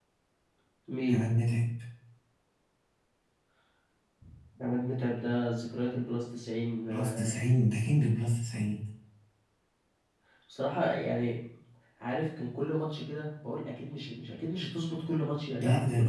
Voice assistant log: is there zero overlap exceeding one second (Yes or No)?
Yes